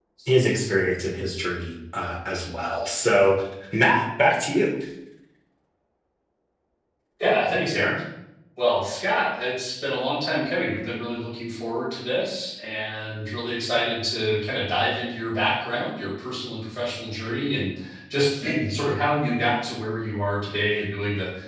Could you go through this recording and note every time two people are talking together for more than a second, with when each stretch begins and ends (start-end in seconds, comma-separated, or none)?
none